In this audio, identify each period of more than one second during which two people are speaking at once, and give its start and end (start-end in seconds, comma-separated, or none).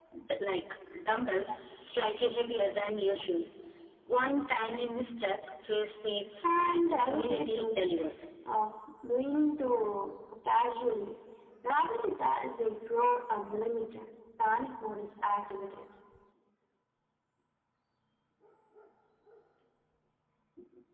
6.6-7.9